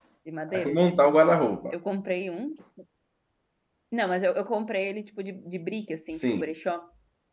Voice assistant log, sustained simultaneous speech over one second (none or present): none